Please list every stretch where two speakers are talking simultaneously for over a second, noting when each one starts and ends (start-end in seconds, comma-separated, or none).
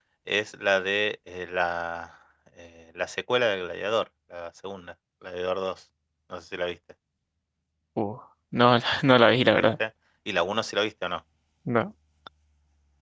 none